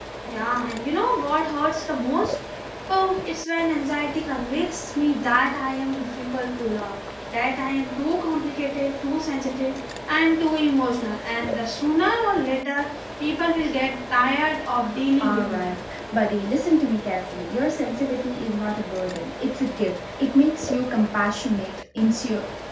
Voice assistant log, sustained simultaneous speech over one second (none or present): none